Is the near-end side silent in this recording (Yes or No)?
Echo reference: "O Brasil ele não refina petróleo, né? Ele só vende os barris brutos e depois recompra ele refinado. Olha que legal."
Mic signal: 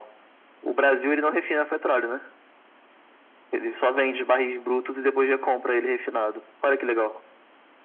Yes